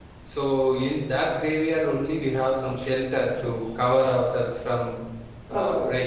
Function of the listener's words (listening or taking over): taking over